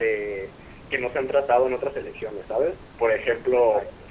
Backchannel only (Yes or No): Yes